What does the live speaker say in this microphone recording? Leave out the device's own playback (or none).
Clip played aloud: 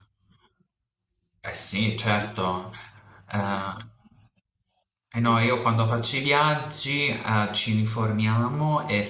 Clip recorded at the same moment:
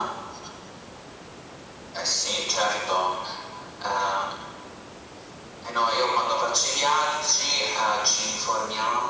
none